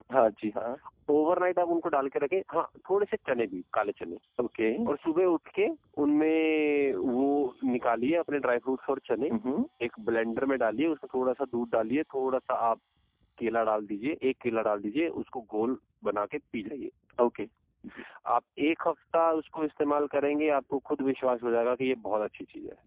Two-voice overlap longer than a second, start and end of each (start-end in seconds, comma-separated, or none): none